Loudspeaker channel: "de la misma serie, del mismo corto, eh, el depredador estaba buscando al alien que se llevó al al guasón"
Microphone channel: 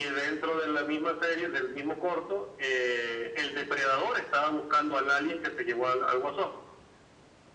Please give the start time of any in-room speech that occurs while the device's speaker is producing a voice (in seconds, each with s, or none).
none